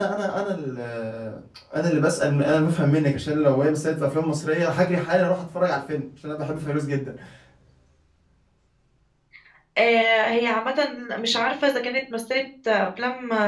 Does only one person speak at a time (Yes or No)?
Yes